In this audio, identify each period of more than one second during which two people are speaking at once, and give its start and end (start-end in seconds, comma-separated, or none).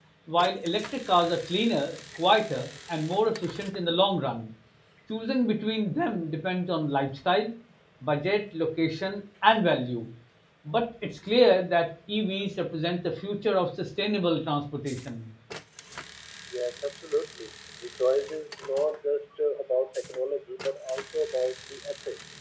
none